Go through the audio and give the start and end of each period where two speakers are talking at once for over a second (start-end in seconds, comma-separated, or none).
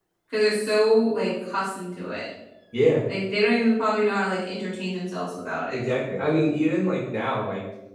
none